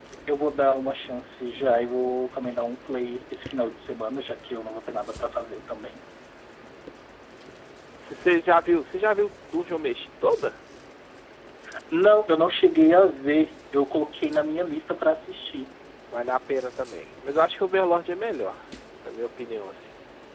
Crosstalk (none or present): none